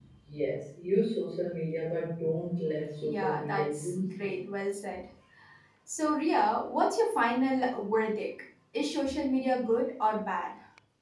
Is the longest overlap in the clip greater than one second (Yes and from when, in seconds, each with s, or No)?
Yes, from 3.0 s